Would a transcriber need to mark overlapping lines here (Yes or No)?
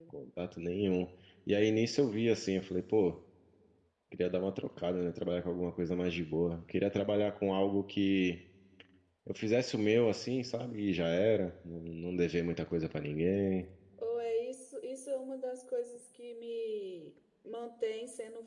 No